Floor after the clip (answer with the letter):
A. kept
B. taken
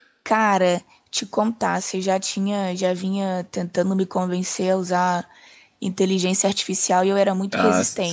B